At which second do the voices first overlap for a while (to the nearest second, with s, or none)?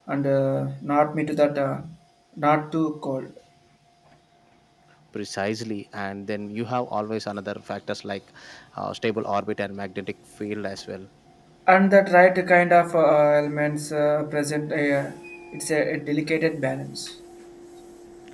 none